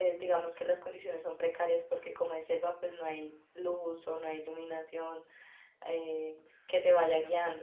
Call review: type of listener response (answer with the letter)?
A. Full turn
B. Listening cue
B